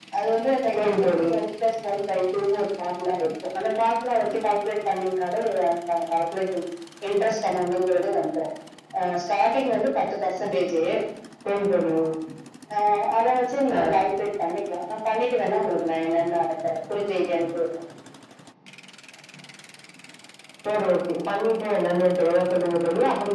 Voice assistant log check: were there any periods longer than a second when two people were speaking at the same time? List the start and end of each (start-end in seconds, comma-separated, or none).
none